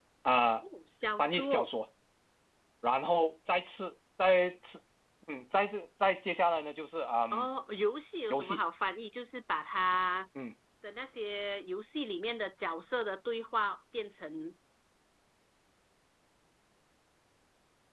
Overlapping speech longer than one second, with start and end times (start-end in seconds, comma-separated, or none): none